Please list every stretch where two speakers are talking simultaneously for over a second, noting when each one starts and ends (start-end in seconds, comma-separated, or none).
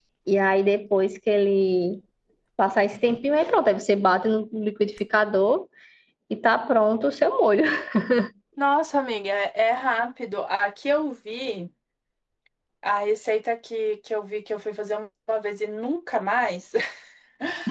none